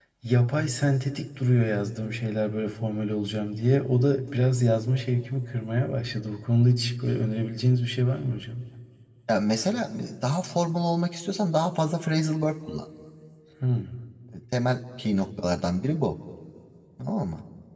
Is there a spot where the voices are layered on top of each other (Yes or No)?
No